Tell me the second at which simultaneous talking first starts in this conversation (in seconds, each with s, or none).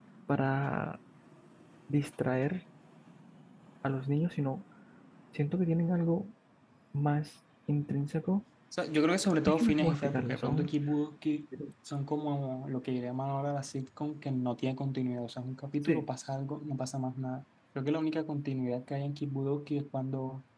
9.5 s